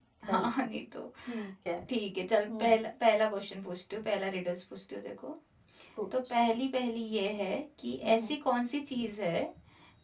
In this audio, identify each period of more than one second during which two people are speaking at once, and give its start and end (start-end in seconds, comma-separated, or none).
none